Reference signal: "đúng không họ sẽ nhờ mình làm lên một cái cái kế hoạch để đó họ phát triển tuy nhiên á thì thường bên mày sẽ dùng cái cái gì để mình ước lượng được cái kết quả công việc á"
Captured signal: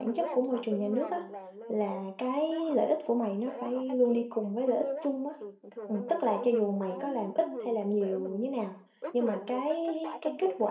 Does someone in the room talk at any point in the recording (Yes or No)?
Yes